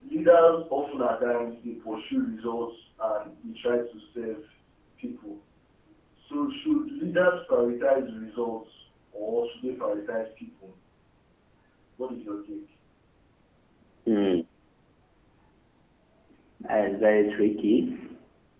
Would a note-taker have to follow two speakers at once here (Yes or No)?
No